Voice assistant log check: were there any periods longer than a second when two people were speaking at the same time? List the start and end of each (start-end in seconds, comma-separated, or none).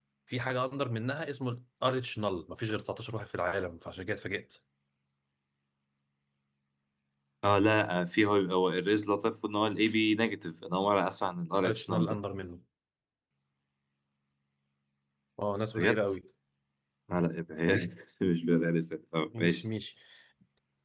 none